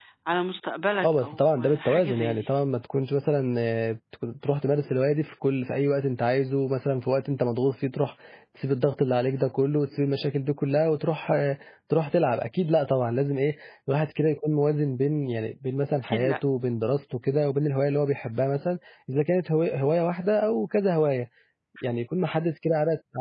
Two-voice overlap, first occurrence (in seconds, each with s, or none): 1.0 s